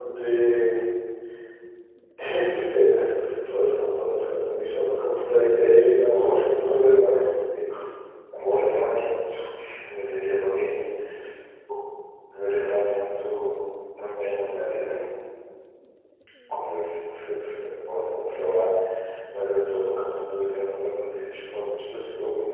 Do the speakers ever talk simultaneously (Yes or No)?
Yes